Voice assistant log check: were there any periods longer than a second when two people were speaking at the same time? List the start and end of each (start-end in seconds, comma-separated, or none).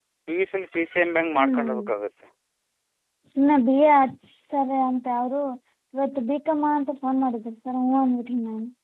none